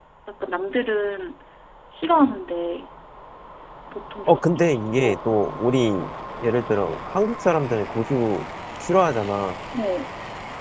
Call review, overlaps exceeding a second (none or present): none